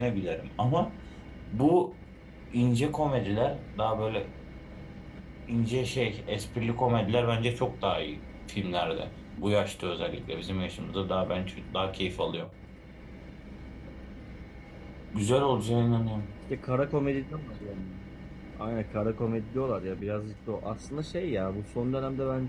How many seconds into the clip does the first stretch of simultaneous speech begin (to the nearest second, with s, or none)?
none